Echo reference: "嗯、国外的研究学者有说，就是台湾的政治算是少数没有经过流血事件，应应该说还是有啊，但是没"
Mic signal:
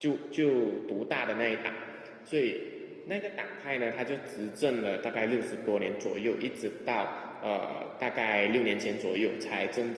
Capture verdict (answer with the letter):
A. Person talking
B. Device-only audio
A